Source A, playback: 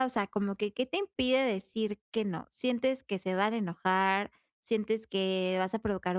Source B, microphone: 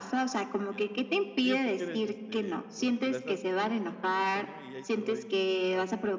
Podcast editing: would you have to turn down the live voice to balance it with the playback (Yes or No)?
No